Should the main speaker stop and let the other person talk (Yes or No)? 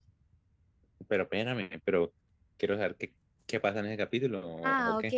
Yes